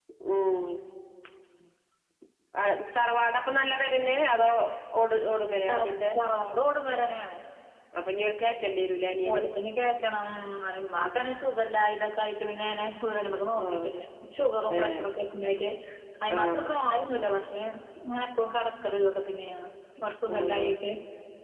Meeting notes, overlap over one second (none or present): none